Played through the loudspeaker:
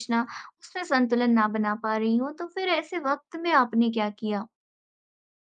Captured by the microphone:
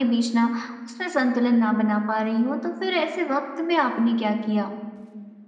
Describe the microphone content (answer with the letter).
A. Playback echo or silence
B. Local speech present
A